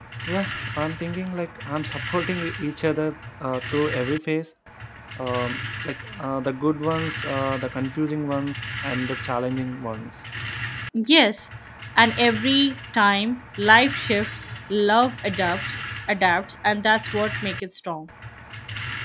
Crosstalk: none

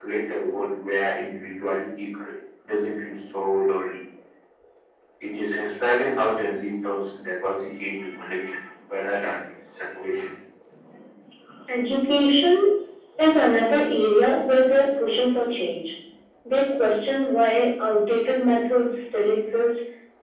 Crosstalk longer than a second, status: none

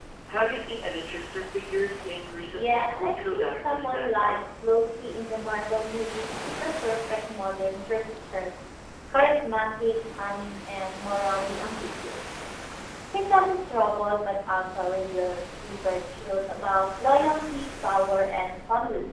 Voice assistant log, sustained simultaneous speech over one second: present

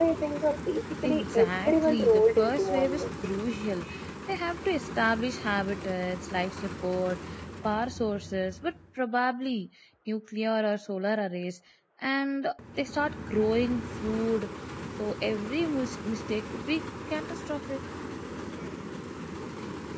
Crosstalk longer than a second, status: present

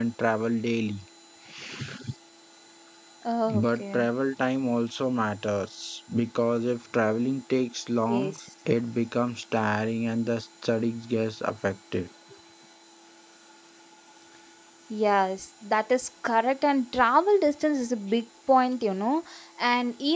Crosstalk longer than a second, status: none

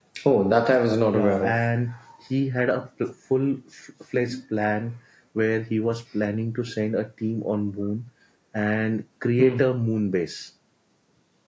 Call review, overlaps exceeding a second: none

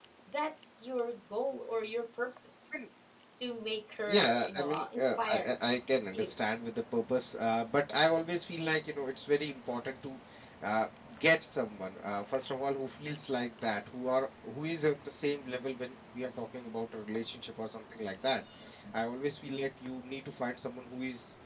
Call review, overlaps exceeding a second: present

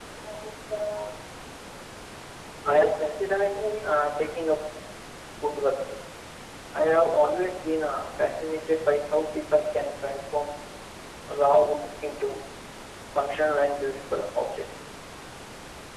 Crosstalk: present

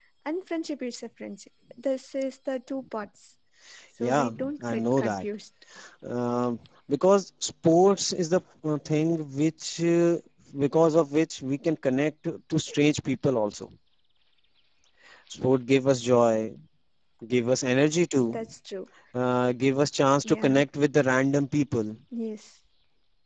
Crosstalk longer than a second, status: present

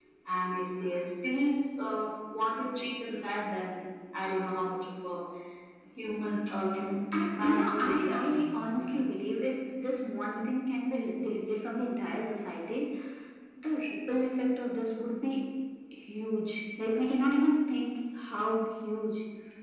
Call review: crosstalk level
present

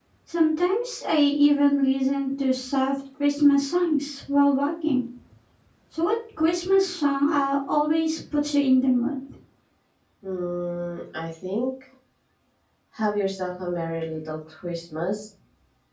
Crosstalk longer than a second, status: none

